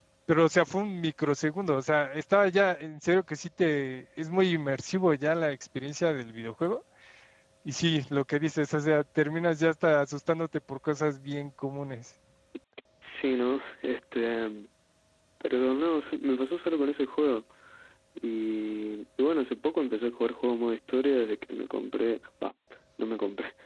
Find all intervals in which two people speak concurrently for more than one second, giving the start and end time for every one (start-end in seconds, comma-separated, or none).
none